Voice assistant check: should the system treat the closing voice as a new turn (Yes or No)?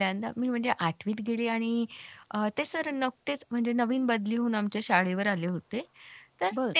No